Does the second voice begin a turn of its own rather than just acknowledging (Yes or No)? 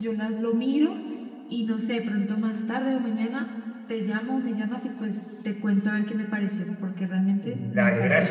Yes